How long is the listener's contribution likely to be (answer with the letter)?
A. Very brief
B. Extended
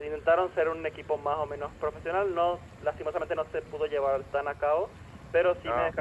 A